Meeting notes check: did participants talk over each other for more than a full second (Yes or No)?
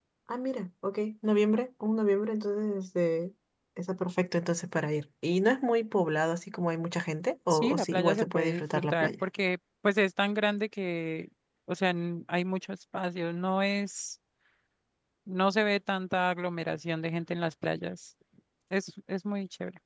Yes